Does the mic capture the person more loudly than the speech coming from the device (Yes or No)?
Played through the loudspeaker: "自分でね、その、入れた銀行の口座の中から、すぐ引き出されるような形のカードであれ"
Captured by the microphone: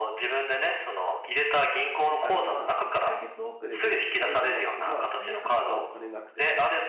No